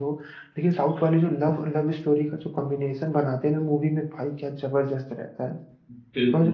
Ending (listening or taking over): taking over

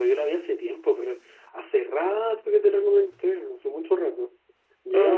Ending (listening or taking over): taking over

